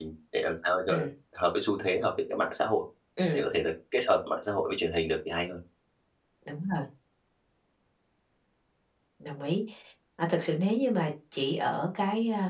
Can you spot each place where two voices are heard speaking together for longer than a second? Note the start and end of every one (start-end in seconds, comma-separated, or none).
none